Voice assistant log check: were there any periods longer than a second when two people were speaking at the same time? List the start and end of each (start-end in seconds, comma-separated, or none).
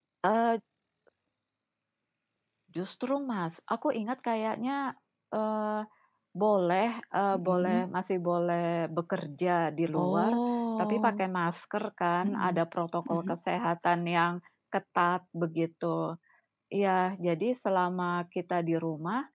none